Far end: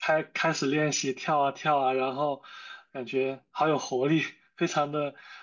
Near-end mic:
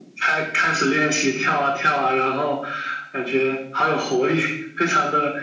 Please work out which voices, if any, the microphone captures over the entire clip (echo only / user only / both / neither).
echo only